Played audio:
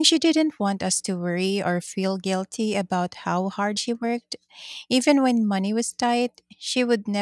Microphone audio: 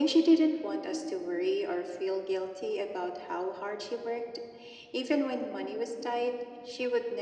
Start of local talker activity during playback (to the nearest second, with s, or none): none